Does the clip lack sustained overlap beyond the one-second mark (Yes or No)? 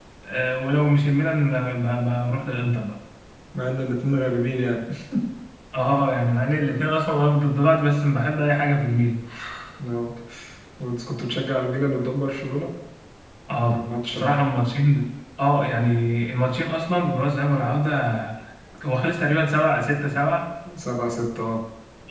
Yes